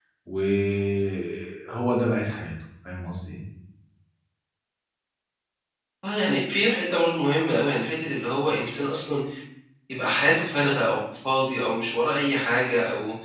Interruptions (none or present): none